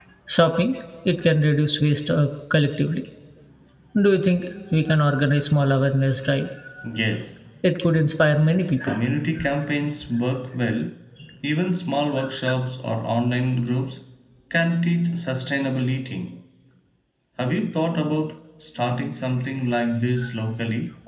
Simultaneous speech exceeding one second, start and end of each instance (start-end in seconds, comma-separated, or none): none